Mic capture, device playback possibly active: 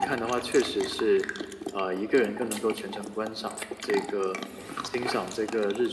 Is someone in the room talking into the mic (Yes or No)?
No